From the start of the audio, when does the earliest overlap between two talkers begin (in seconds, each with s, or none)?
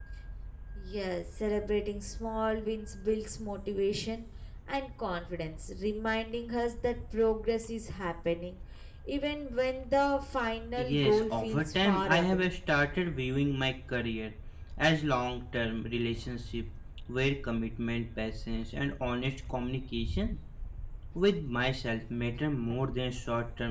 10.8 s